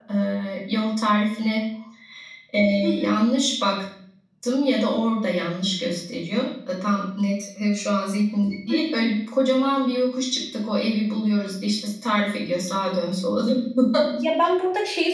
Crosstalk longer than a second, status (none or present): none